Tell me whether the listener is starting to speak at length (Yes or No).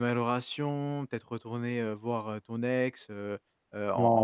Yes